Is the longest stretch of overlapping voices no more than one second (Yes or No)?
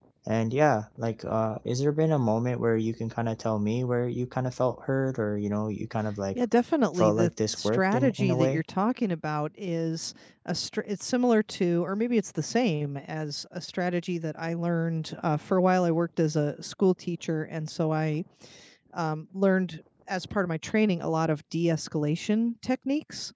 No